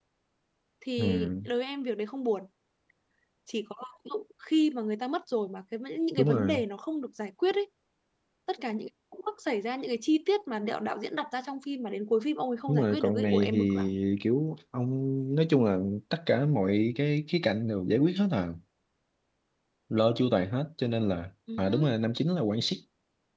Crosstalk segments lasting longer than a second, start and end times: 12.7-13.9

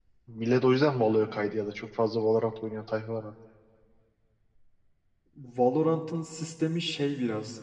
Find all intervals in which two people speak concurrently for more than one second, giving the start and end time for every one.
none

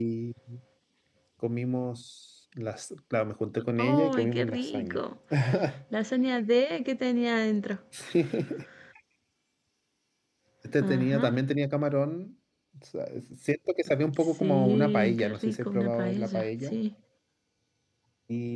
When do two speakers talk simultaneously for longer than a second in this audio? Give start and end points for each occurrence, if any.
3.8-5.0, 14.4-16.8

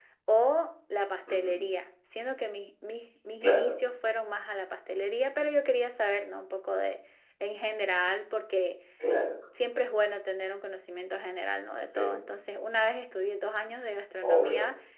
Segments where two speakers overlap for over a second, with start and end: none

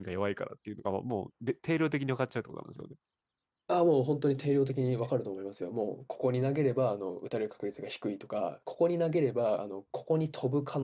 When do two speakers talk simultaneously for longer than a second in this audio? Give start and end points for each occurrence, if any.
none

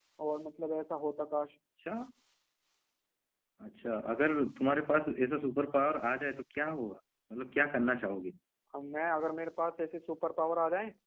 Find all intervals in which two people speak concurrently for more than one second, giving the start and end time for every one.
none

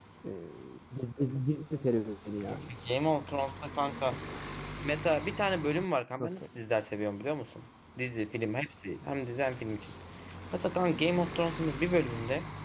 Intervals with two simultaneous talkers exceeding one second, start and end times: none

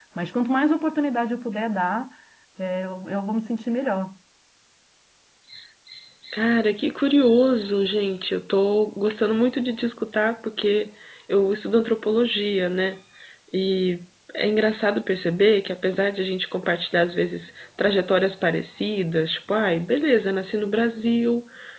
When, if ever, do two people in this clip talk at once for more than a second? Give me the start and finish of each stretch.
none

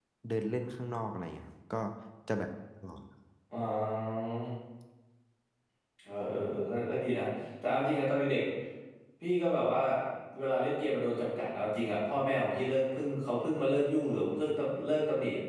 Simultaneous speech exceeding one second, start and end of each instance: none

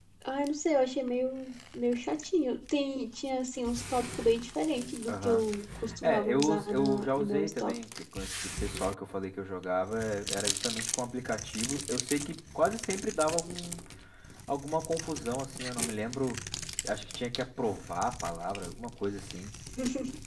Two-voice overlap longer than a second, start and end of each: 6.0-7.7

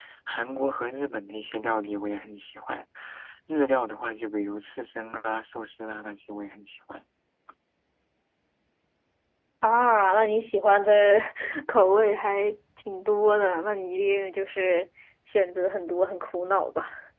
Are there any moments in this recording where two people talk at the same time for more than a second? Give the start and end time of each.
none

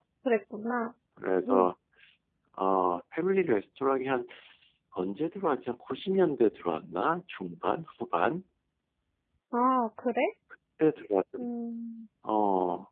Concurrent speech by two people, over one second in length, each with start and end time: none

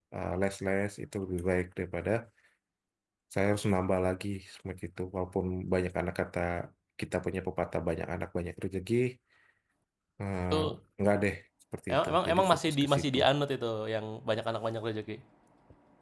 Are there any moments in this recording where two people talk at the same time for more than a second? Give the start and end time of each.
11.9-13.2

